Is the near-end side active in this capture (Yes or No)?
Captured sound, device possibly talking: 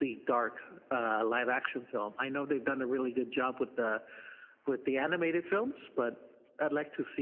No